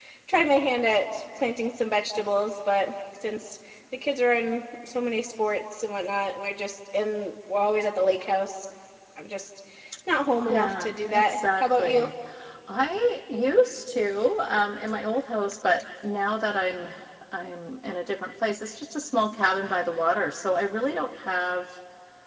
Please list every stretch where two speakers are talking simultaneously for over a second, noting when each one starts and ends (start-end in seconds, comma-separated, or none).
10.4-12.1